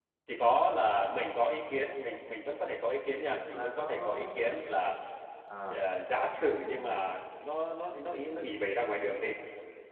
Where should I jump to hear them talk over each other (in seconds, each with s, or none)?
3.2 s